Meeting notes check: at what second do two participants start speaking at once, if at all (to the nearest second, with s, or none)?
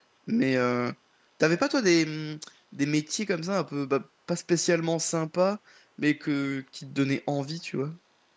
none